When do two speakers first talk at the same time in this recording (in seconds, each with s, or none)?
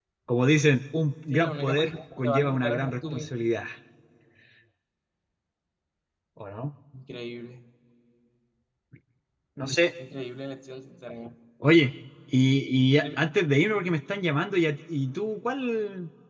1.3 s